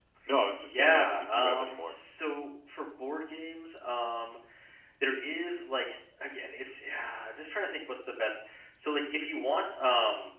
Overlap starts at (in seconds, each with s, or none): 0.7 s